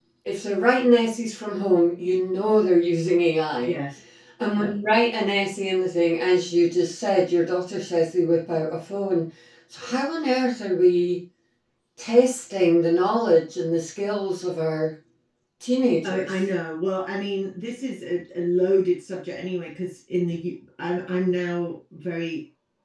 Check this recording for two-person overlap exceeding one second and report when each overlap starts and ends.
none

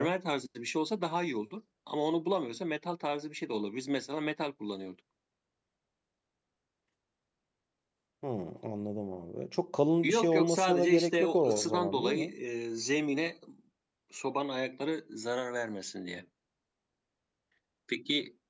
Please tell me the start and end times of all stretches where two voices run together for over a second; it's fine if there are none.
10.0-12.3

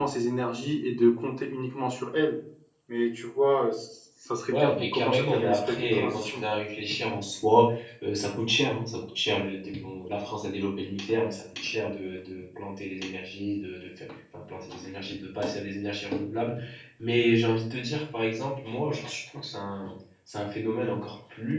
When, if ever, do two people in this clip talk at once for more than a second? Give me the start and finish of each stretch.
4.5-6.4

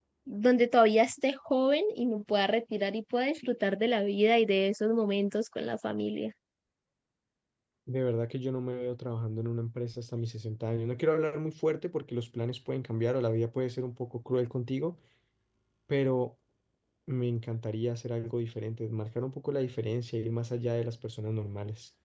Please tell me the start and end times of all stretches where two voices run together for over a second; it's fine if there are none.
none

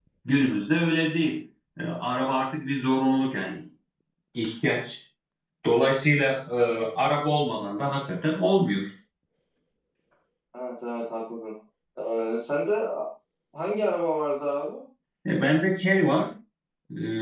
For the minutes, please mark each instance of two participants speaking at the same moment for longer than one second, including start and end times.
none

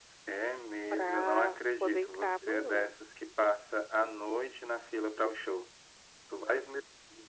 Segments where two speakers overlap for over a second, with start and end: 0.9-2.9

